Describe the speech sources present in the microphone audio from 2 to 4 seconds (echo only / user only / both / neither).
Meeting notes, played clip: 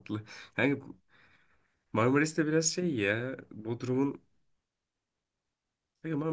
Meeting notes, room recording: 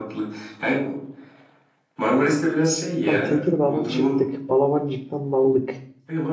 both